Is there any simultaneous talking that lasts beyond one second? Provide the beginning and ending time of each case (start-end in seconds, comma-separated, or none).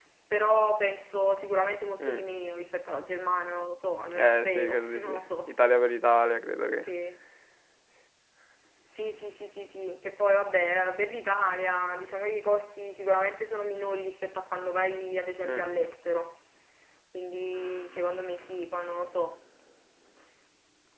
4.1-5.5